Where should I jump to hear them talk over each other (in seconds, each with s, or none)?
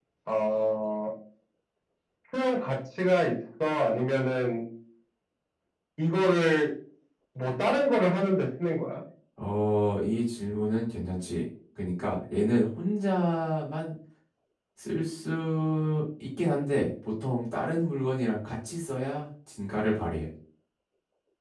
none